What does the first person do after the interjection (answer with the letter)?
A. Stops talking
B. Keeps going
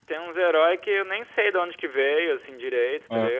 B